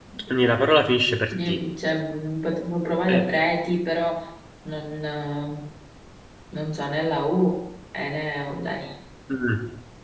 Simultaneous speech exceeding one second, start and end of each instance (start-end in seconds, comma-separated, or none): none